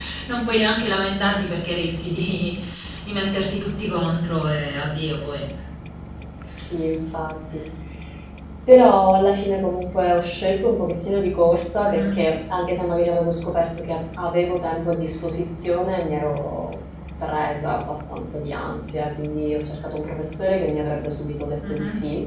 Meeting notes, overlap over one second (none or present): none